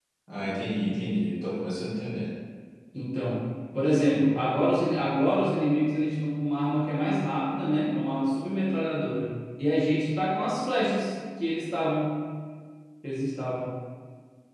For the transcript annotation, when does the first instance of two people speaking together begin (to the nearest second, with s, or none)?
none